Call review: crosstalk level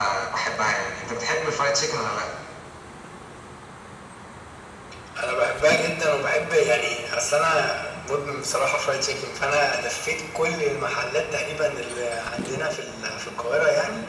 none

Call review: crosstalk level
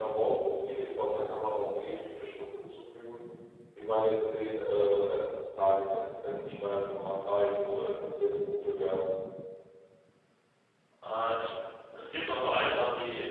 none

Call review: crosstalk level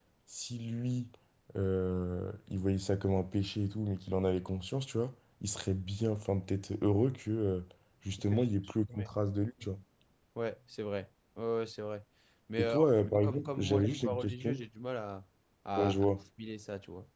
present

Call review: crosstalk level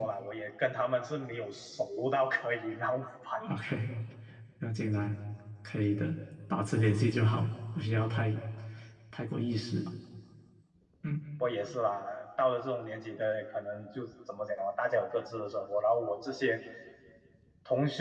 none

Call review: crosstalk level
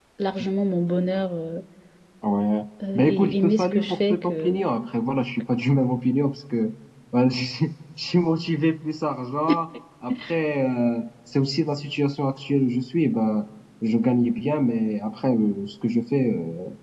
present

